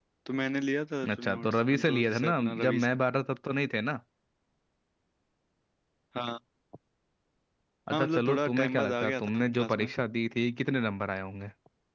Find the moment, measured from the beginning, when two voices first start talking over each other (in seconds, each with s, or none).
1.1 s